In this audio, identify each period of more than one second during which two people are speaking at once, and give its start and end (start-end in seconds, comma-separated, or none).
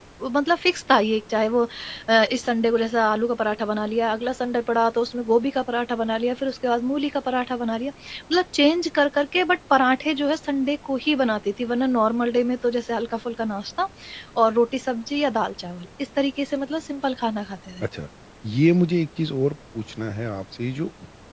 none